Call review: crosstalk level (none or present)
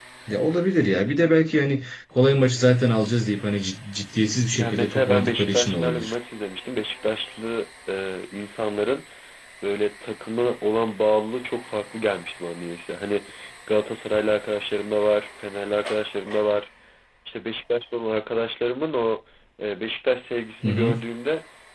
present